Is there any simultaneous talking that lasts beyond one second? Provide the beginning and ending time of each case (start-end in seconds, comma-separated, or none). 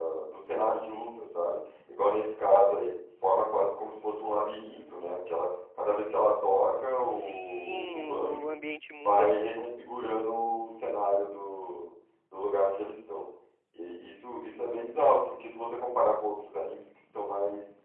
7.1-8.5